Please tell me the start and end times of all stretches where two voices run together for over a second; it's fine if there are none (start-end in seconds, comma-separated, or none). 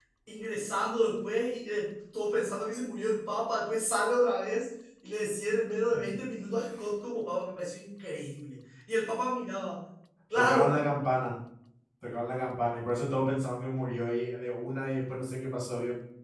none